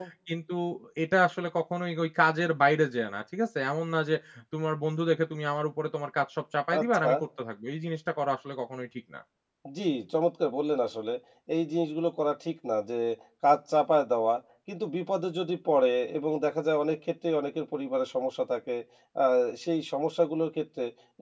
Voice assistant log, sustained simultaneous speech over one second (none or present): none